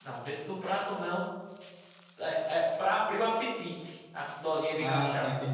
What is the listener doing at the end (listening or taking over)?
taking over